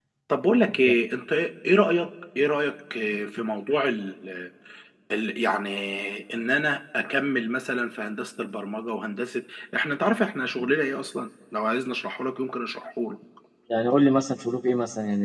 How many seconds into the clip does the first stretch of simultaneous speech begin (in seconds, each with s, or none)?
none